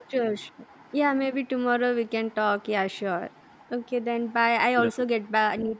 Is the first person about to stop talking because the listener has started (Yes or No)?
No